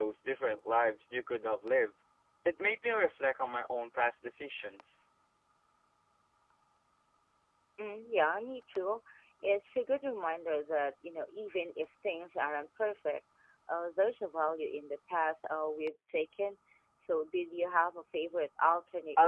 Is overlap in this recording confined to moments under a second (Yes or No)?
Yes